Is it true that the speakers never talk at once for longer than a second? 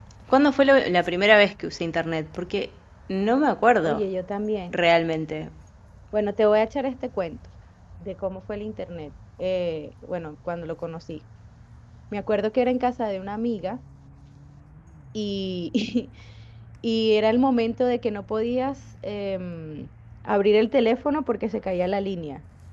Yes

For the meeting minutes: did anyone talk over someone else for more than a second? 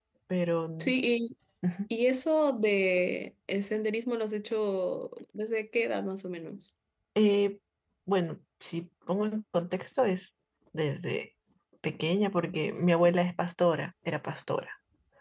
No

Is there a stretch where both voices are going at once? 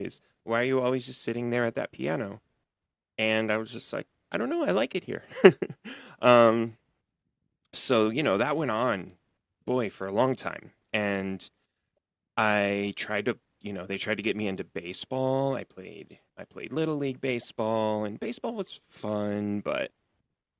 No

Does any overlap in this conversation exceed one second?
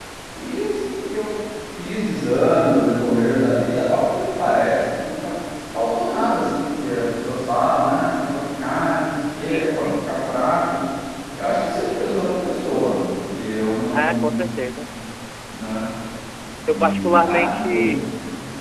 Yes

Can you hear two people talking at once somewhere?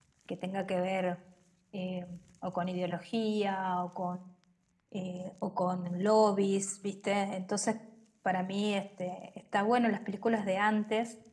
No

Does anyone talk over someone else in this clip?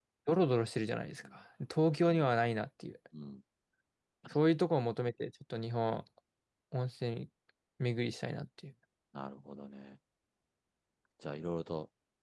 No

